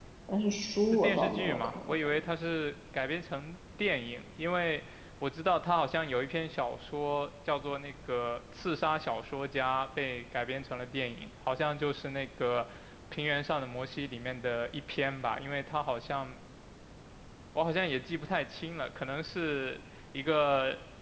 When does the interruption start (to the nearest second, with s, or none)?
1 s